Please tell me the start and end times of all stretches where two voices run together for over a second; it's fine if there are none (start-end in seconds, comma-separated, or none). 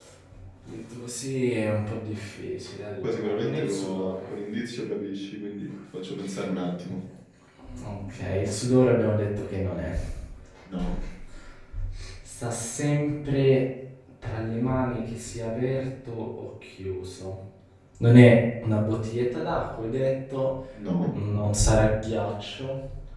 3.0-4.3